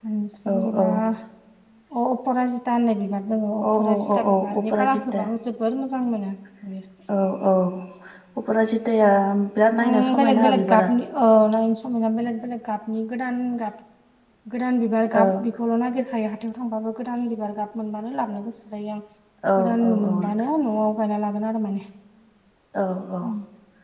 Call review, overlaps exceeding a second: present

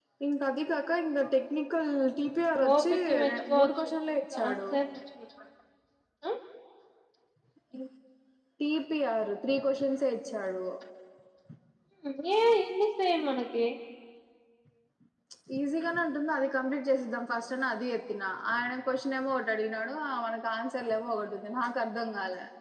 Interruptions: present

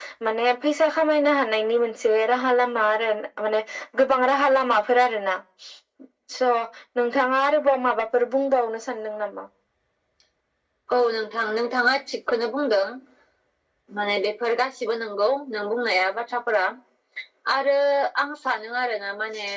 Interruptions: none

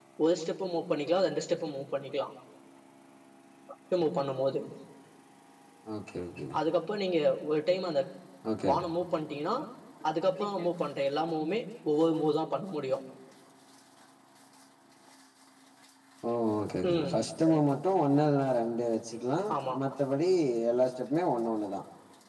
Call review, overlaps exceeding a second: none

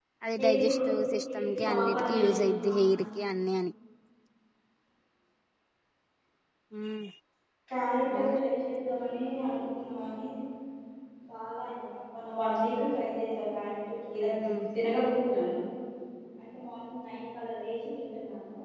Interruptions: present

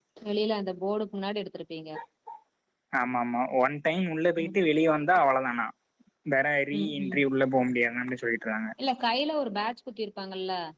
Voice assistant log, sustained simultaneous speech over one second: none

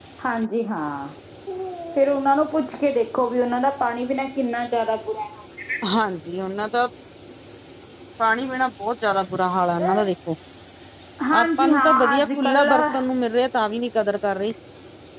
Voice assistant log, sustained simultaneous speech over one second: present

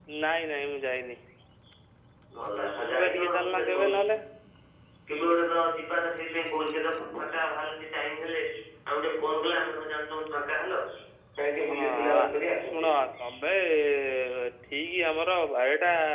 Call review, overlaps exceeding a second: present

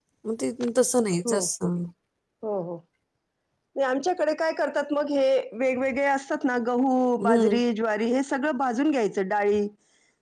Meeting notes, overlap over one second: none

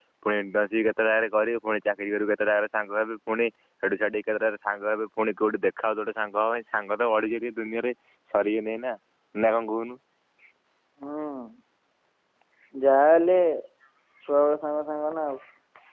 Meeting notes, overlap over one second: none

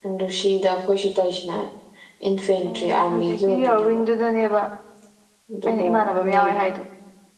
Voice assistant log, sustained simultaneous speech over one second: present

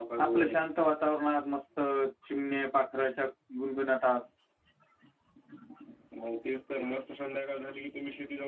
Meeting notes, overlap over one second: none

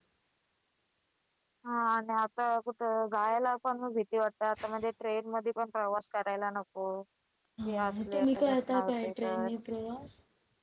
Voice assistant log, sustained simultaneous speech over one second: present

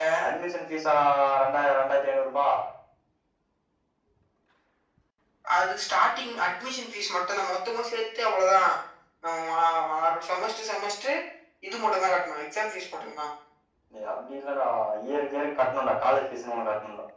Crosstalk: none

